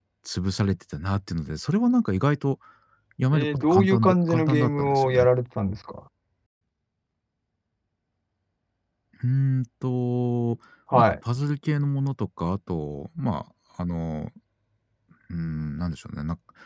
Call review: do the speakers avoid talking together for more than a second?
No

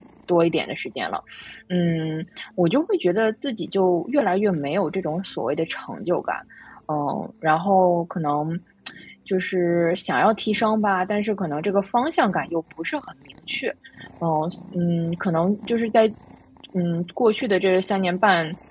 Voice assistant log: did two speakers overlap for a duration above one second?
No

